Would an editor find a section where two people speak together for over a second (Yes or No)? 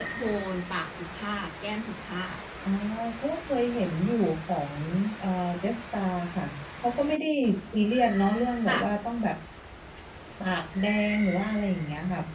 No